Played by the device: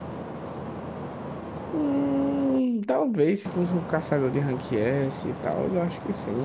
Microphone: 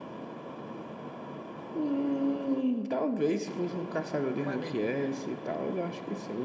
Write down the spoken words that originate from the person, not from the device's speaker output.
Mano, e,

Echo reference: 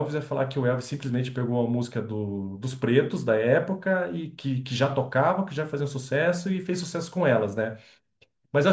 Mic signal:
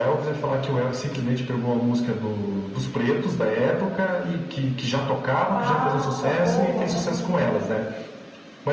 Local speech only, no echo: Passa, voa, né, menino?

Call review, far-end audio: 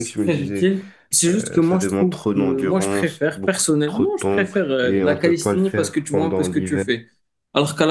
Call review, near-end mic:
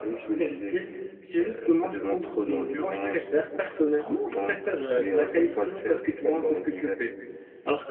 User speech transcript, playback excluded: none

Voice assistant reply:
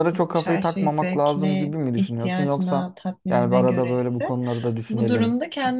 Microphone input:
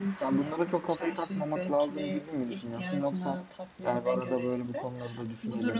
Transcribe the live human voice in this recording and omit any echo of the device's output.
none

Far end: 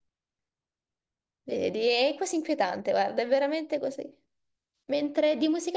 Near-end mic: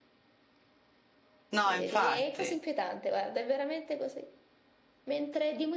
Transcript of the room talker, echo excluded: No, infatti,

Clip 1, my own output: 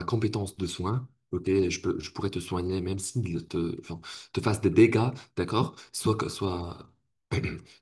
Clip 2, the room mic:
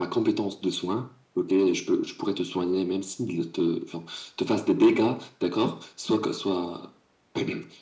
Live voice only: none

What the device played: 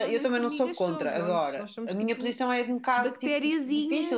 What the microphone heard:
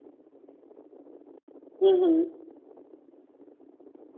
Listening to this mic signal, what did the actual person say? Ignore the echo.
Uhum.

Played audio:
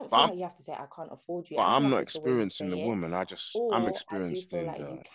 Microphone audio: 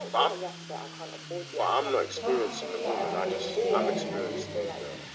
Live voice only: But I find that a bit scary though.

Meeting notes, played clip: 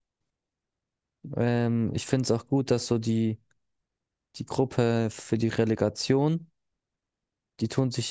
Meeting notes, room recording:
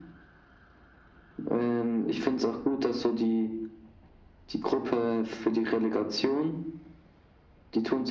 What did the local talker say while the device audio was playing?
none

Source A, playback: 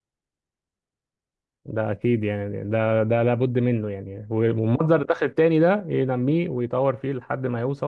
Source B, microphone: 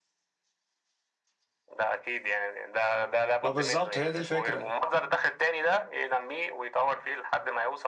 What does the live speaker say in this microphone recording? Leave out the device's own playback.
ما بالظبط هي دي الفكره

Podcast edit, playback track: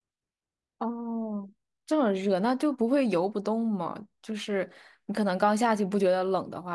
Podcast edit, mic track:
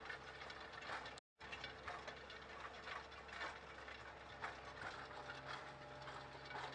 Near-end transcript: none

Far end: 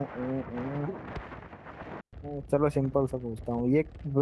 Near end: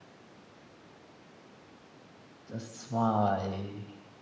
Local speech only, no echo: चश्मा भाई

